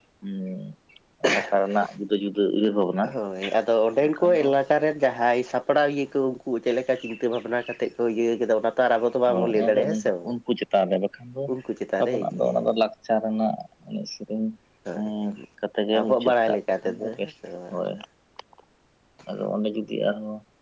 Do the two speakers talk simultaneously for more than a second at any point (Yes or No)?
Yes